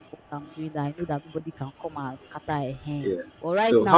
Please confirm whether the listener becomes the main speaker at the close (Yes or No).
Yes